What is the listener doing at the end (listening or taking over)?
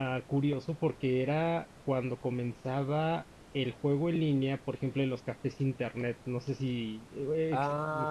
taking over